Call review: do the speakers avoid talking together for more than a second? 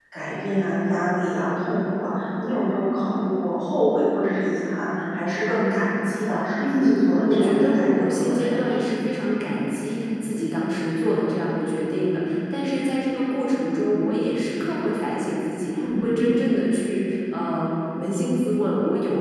No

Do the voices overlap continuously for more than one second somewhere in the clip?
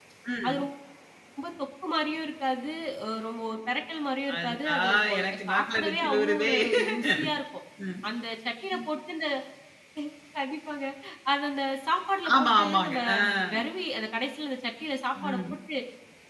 Yes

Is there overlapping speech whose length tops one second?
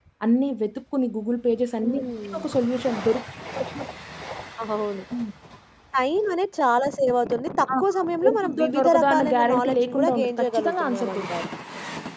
Yes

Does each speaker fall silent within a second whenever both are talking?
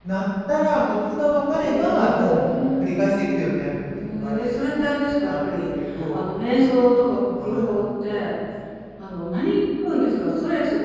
No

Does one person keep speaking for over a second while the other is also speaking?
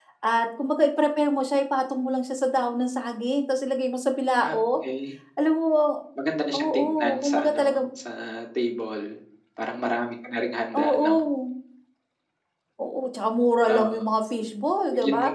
Yes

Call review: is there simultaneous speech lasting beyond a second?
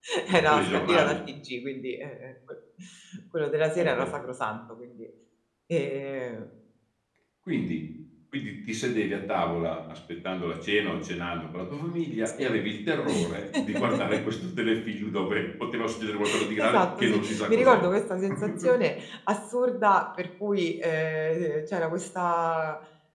Yes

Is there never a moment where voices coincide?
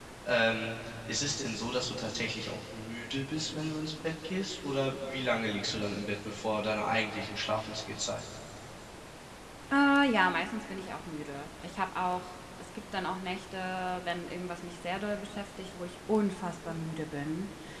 Yes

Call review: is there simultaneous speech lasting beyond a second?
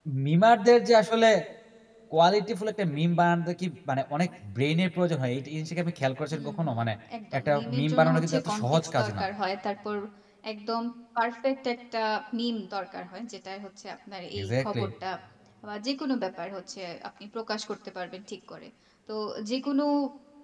Yes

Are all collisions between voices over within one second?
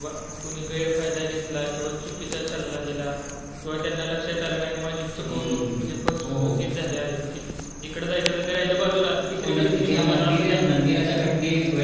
No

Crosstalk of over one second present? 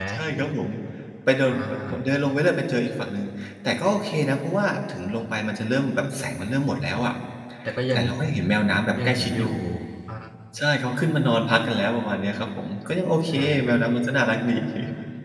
No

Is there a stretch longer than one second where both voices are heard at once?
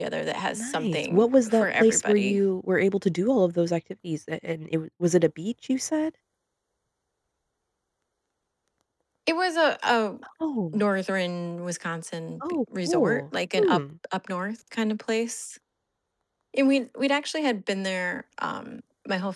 Yes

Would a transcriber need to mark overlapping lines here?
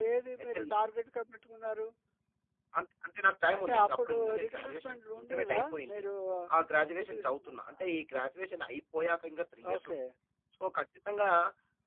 Yes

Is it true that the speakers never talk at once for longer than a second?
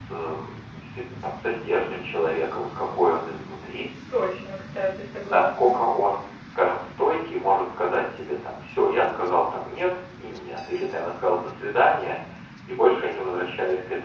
Yes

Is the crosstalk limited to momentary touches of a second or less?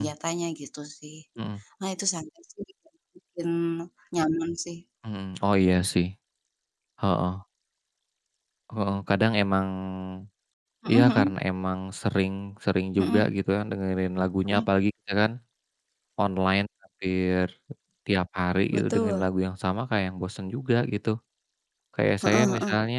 Yes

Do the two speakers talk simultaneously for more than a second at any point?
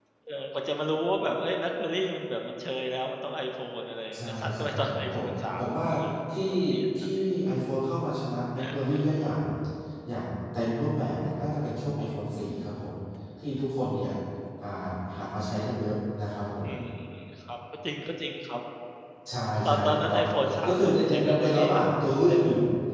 Yes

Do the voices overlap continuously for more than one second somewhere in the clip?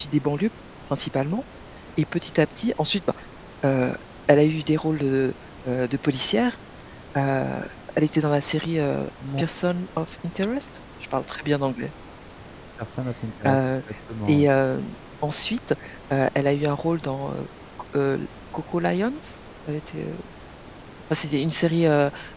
No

